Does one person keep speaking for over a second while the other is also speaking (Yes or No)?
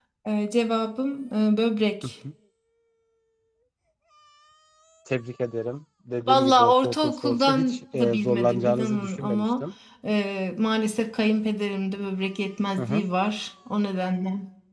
Yes